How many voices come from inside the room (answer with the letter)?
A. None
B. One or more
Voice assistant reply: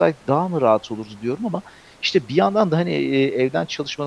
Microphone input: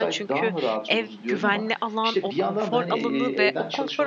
B